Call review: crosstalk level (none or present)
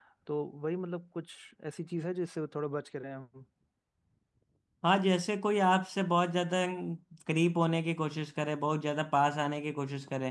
none